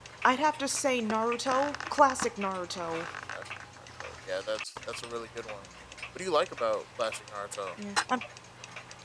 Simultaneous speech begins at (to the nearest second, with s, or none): none